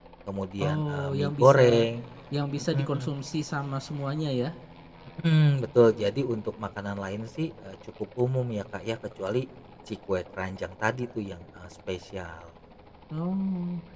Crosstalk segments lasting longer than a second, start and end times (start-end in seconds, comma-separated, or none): 0.6-1.9